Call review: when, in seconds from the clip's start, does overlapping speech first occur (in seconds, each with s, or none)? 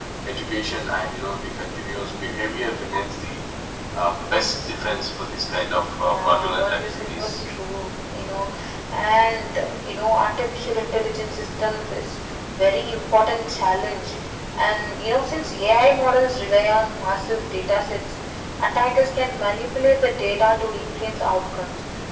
6.0 s